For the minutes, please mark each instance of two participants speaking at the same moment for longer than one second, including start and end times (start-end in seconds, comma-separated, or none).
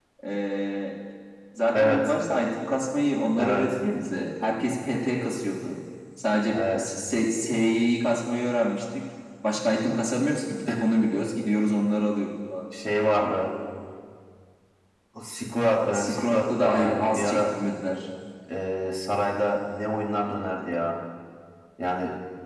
15.9-17.4